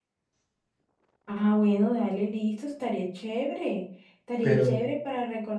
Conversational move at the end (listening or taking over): listening